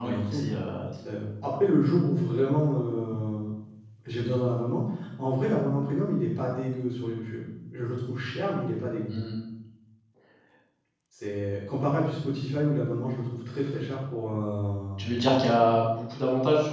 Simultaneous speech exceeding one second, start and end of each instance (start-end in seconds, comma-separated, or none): none